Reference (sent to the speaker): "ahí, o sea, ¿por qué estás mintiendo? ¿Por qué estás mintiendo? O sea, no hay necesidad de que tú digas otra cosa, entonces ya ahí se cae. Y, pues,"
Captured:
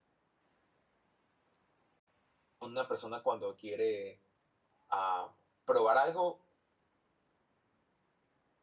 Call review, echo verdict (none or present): none